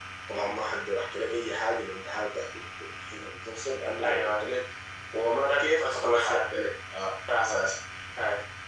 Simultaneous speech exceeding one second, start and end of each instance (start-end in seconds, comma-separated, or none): 5.2-6.5